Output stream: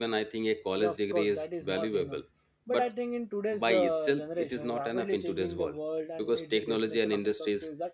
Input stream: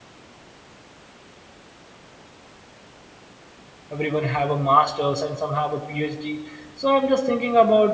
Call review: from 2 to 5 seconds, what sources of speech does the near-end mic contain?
user only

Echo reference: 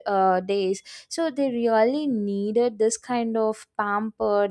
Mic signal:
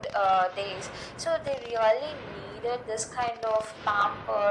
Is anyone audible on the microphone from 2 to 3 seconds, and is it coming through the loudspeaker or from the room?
echo only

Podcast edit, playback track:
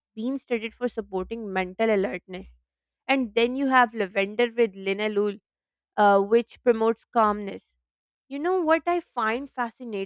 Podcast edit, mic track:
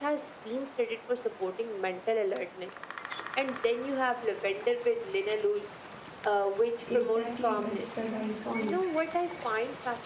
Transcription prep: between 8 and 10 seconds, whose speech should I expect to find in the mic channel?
both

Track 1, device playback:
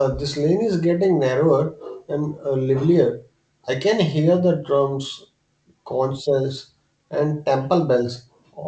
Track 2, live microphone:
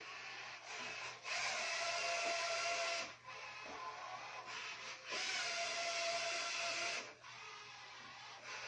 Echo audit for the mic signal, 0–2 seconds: neither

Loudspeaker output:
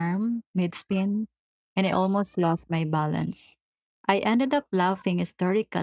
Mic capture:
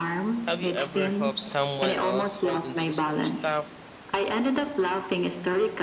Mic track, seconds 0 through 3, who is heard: both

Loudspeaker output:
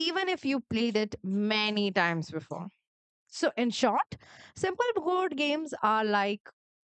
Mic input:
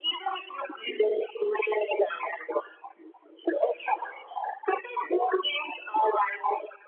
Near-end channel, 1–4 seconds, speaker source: echo only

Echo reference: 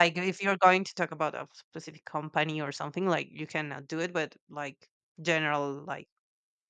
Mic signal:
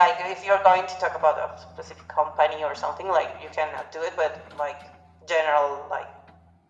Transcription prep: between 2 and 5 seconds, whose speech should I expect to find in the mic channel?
echo only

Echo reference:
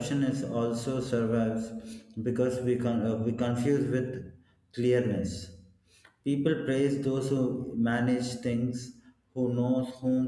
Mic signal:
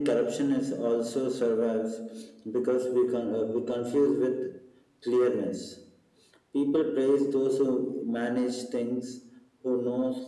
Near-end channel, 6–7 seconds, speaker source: echo only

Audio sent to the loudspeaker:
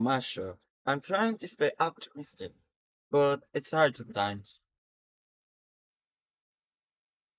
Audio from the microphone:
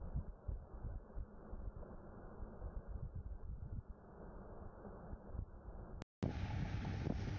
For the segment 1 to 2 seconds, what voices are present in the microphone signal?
neither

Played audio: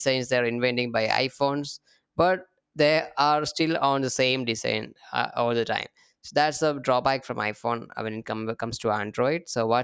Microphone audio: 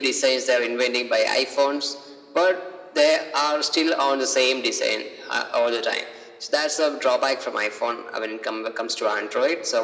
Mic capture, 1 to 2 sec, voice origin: echo only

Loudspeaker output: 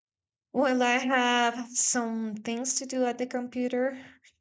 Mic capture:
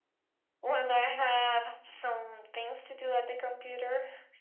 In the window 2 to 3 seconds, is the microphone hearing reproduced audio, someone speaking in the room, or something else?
echo only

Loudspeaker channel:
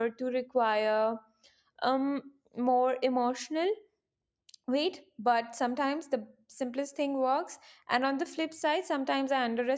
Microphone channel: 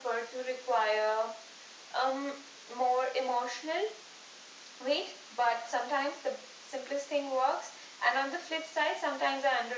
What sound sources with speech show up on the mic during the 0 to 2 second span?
echo only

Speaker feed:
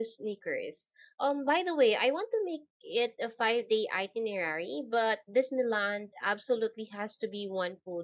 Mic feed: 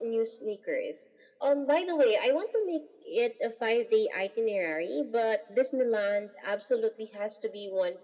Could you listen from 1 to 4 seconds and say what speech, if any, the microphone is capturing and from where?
echo only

